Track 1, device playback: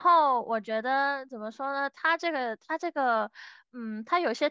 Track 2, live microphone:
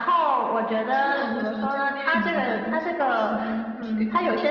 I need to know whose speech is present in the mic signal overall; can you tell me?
both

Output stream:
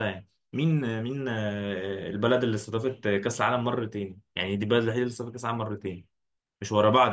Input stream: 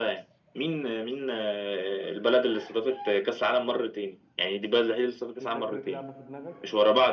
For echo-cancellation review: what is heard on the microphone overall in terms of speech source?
both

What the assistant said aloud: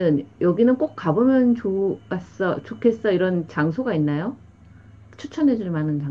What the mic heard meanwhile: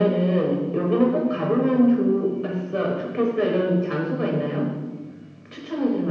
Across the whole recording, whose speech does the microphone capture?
echo only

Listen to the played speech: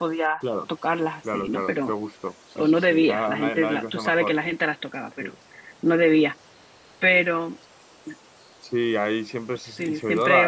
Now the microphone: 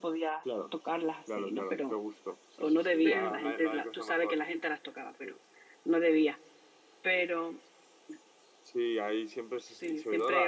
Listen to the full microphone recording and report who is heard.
both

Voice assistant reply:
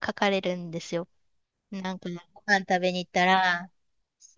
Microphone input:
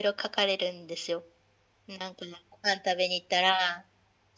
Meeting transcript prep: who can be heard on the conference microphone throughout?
echo only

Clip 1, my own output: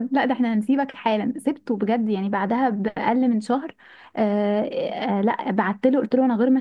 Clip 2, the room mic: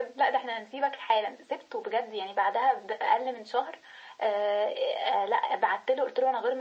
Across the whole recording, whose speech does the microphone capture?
echo only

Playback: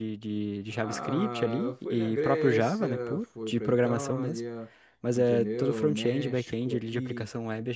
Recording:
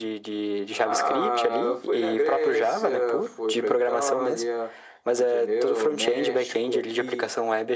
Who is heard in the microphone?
echo only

